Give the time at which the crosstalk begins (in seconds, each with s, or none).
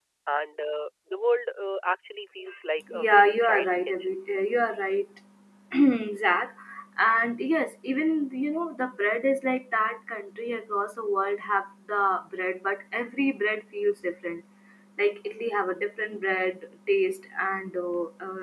2.9 s